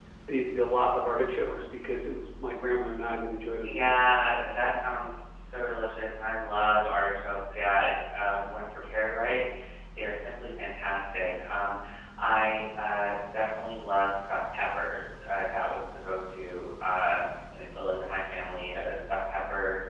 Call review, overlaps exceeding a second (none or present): none